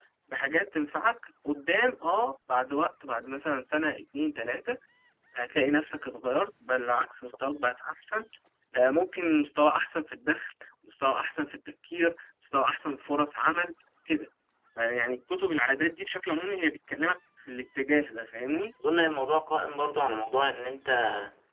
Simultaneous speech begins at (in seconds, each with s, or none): none